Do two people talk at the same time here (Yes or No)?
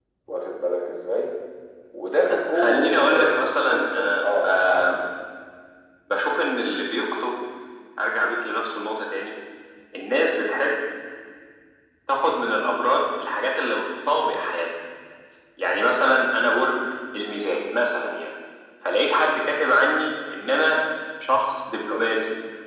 Yes